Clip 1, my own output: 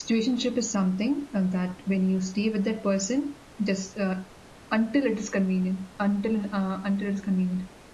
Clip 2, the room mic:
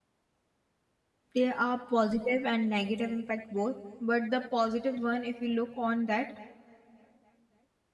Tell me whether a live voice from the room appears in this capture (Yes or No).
Yes